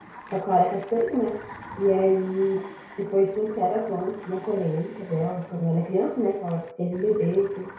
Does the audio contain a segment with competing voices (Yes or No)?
No